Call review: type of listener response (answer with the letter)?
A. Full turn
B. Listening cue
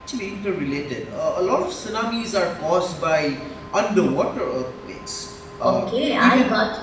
A